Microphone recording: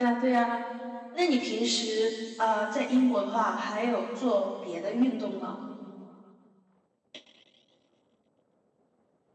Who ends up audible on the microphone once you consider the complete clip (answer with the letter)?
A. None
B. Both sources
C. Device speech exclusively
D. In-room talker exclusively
D